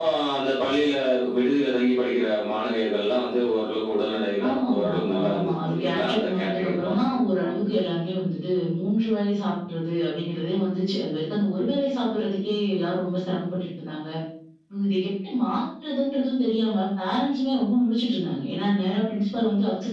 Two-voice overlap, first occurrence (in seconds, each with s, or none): 4.4 s